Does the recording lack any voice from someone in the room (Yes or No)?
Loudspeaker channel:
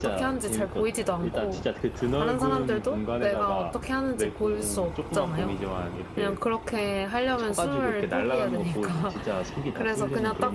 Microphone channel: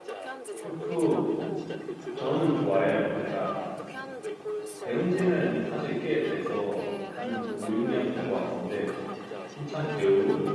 No